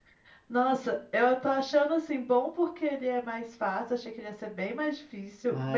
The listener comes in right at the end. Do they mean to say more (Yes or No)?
Yes